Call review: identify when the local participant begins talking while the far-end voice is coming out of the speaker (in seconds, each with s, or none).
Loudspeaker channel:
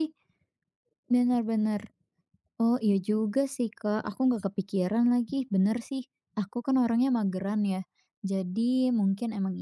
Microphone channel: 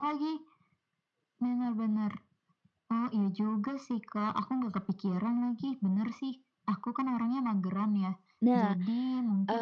8.4 s